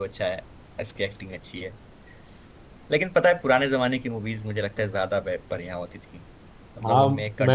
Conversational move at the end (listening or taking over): taking over